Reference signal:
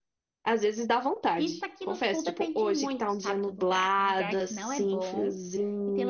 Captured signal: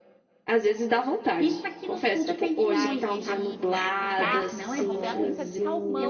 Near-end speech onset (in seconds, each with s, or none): 2.6 s